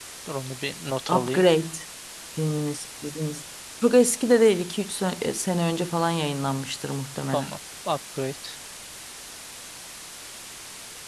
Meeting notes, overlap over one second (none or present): none